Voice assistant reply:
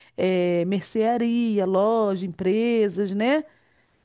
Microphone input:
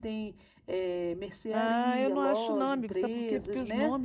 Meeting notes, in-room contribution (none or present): present